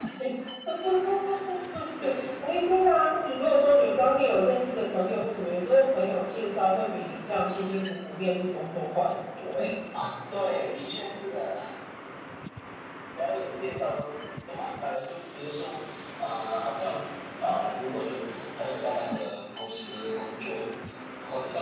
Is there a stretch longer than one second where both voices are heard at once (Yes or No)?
No